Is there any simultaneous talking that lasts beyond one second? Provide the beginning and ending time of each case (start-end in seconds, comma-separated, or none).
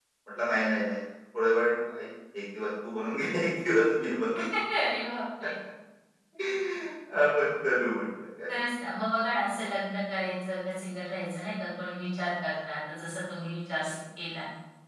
none